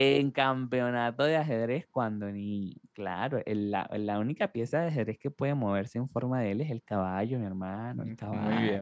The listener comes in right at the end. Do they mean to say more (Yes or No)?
Yes